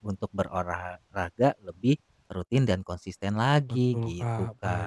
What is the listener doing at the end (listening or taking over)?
taking over